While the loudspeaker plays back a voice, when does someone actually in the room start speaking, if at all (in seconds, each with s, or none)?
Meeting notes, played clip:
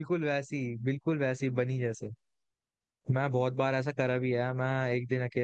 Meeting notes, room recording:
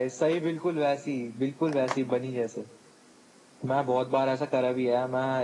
none